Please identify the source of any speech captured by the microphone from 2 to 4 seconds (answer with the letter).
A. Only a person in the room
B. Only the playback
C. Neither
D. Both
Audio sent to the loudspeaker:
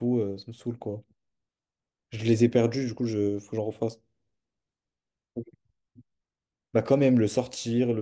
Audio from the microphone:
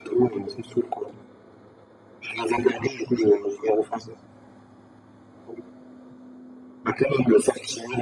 B